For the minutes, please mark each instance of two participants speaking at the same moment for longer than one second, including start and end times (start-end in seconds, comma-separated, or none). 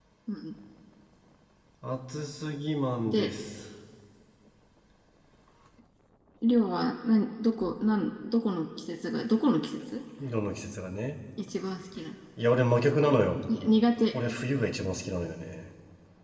none